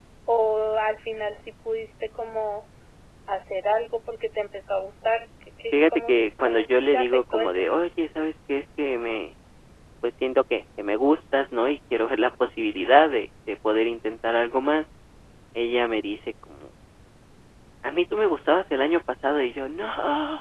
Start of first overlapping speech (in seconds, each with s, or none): 5.7 s